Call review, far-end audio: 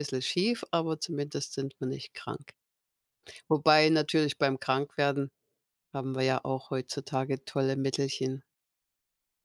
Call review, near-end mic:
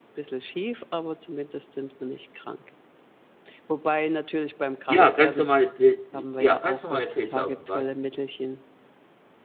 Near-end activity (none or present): present